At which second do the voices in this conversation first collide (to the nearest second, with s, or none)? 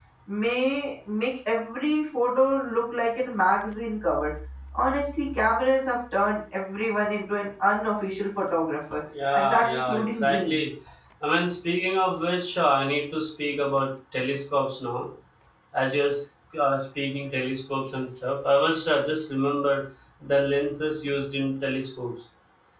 9 s